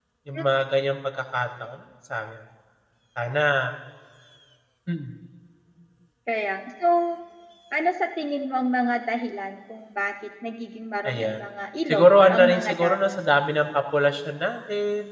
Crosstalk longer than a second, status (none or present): present